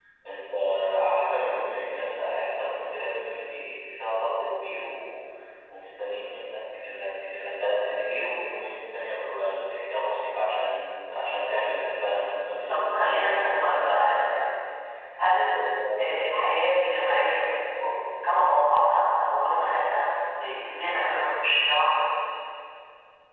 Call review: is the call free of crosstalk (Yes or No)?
No